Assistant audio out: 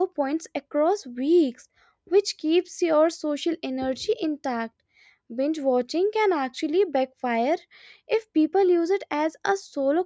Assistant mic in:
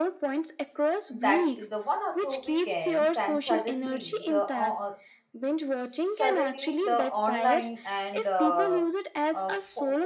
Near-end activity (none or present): present